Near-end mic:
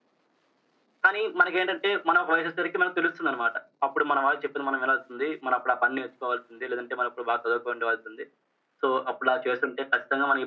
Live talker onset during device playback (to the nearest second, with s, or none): none